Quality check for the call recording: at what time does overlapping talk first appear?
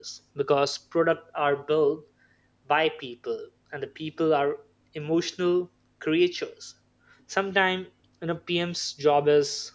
none

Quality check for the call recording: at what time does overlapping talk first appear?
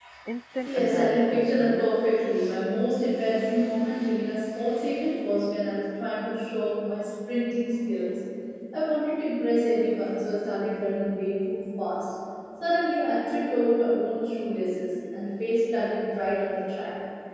0.6 s

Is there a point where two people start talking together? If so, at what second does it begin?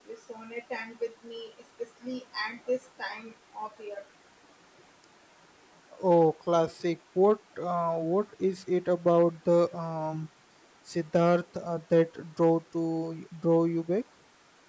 none

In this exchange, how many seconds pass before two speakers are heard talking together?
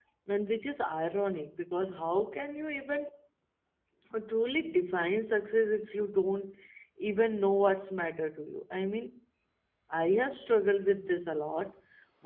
none

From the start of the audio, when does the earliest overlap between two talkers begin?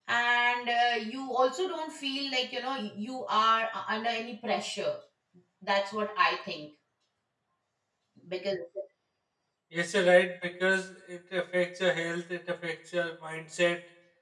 none

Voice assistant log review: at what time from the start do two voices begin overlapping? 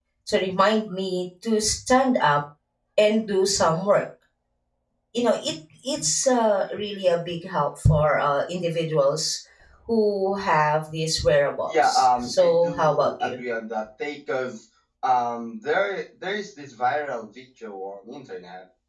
11.7 s

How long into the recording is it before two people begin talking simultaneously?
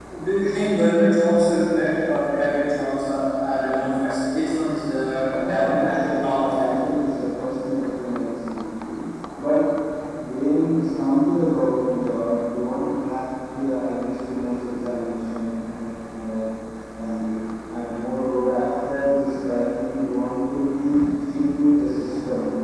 5.4 s

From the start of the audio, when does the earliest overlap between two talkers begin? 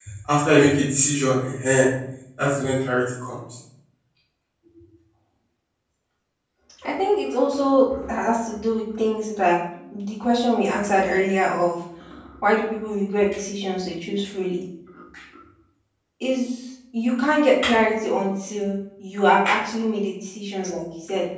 none

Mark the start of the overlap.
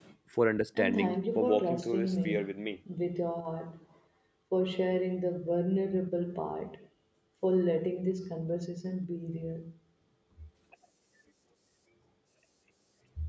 0.8 s

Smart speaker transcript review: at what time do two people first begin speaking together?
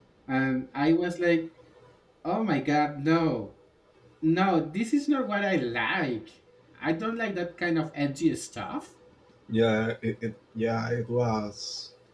none

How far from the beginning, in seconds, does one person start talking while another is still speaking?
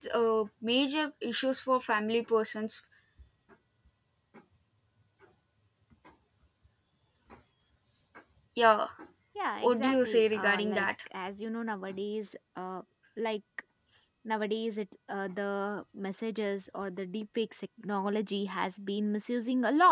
9.6 s

